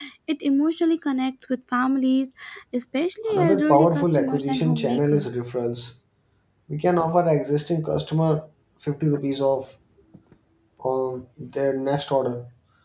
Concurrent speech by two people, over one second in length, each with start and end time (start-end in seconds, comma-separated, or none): 3.3-5.4